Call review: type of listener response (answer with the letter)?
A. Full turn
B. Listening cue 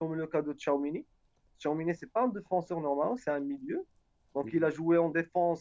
B